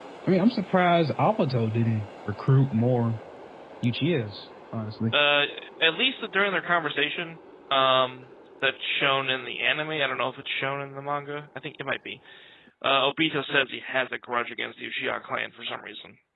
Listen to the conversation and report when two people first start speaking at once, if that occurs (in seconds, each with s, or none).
none